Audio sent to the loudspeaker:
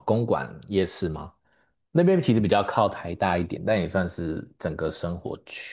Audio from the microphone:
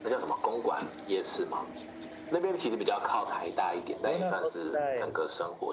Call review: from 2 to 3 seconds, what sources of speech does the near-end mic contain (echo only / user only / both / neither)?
echo only